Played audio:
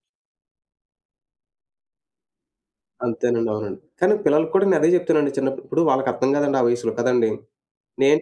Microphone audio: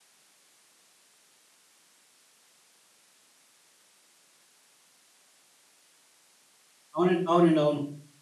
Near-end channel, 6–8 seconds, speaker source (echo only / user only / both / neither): user only